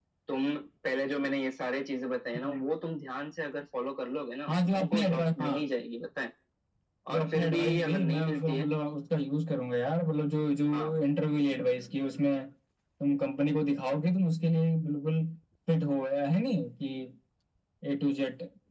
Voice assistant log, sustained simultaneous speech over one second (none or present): present